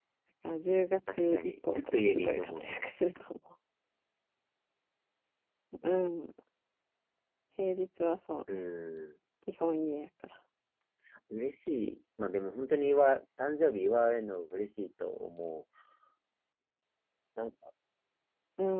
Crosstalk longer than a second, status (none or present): present